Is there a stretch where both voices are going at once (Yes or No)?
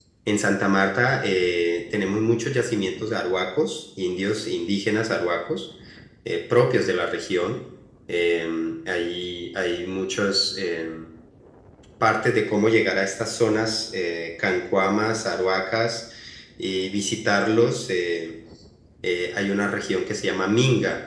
No